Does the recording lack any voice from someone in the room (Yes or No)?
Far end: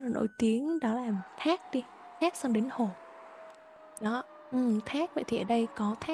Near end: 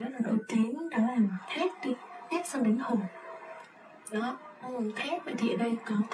Yes